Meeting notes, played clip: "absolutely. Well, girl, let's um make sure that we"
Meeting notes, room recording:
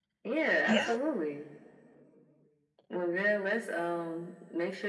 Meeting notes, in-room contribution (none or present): present